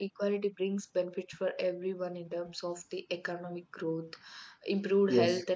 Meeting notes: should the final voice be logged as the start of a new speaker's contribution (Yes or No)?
No